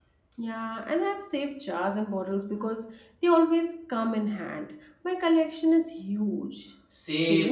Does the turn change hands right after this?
Yes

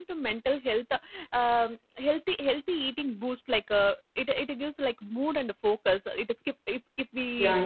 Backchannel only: No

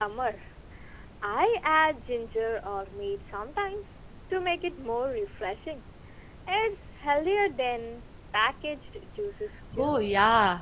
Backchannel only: No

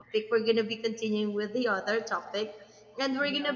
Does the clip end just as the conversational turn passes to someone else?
No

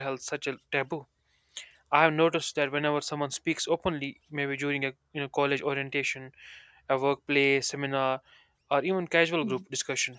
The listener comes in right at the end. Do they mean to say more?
No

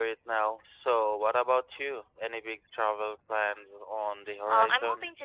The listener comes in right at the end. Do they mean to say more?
Yes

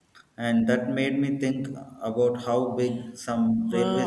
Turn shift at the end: Yes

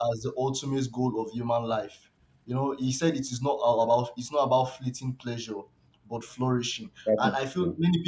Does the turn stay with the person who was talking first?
Yes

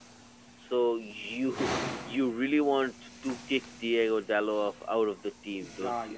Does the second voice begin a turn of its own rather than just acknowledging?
Yes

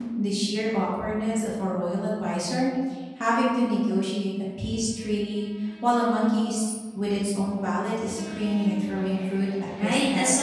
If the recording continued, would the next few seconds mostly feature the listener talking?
Yes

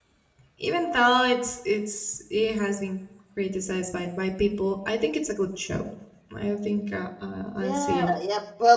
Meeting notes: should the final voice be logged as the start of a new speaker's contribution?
Yes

